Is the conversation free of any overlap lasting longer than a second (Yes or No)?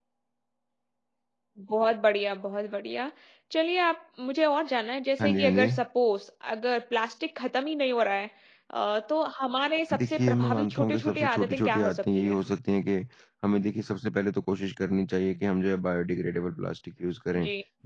No